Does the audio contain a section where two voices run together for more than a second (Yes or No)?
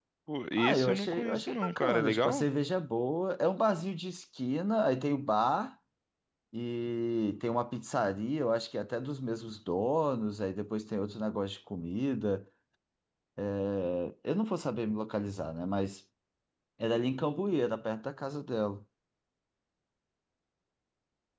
Yes